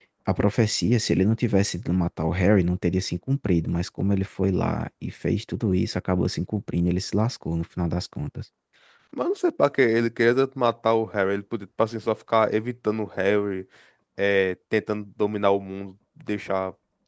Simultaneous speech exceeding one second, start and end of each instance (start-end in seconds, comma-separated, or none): none